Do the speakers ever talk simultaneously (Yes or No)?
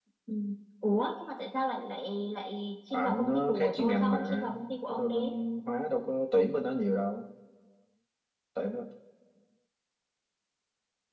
Yes